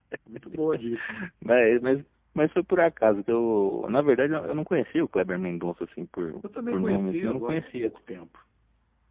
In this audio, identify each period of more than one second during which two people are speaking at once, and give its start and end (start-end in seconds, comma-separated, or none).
6.7-7.9